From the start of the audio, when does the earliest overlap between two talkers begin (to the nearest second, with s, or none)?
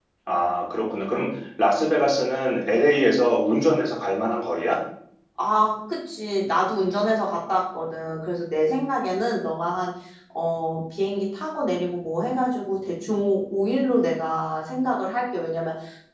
none